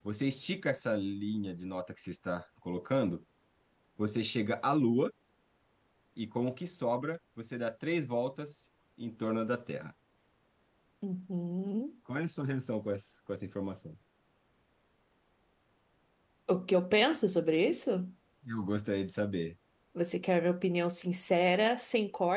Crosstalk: none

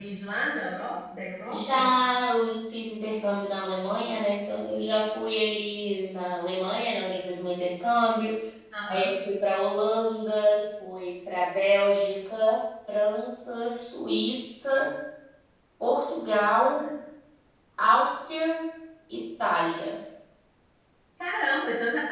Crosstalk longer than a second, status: none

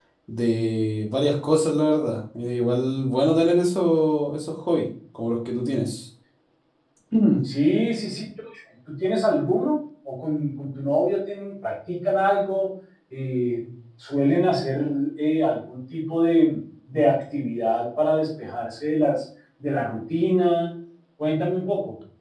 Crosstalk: none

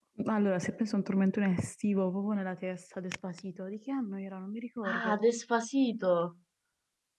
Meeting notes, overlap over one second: none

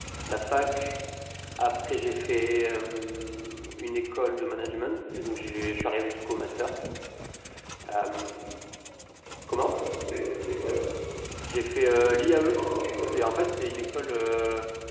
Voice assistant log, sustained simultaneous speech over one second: none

